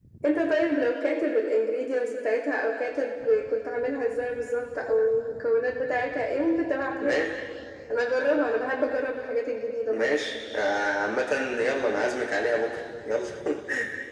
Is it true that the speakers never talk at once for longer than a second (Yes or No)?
Yes